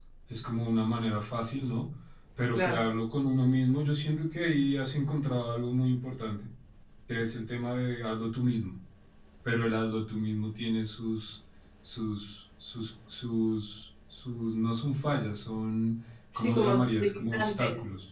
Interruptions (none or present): present